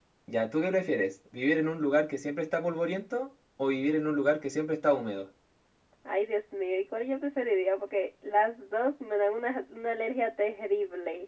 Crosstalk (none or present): none